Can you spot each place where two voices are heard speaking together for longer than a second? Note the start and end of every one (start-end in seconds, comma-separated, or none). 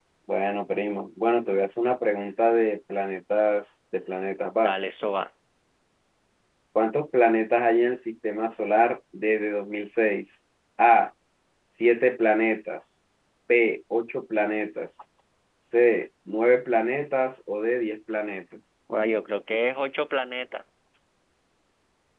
none